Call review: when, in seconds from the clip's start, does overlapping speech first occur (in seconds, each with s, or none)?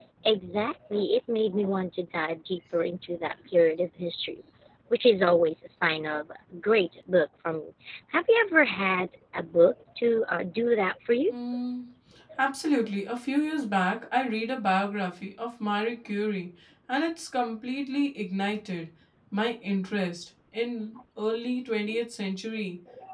none